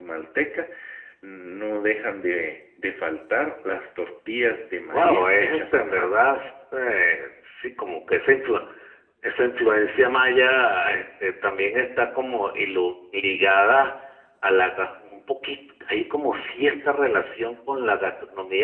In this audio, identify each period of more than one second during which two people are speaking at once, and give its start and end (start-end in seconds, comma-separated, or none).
4.9-6.2